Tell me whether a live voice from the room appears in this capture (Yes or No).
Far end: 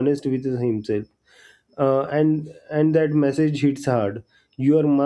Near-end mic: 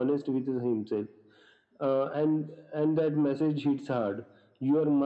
No